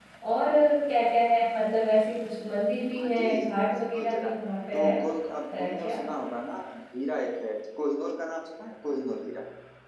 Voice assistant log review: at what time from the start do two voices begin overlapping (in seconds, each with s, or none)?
3.0 s